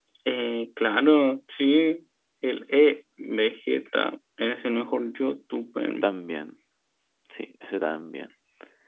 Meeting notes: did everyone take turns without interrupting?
Yes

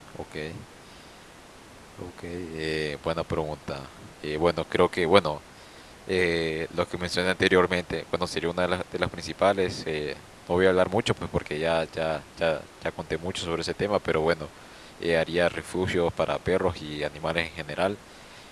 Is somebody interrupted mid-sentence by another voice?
No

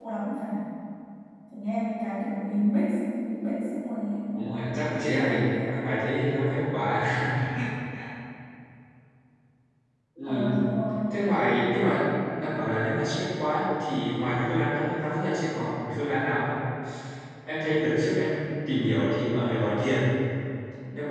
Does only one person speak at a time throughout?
No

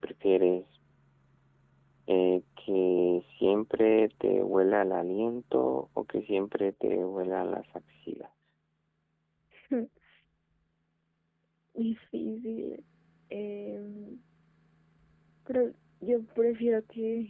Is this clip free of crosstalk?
Yes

